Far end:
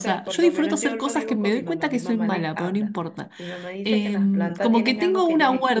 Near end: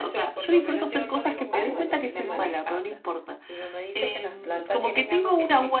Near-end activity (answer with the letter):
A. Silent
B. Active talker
B